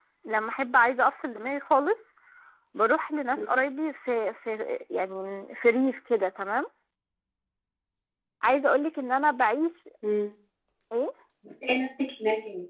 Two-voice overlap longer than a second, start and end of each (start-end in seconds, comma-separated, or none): none